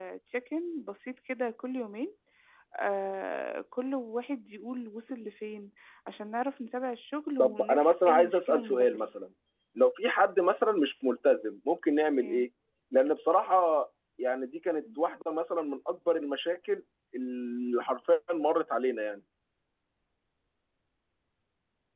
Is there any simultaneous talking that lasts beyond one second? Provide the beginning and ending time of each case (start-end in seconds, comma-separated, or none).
7.4-9.1